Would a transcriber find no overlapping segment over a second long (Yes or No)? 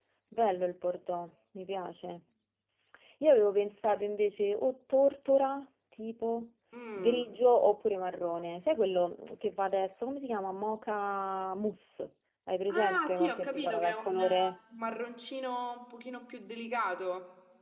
No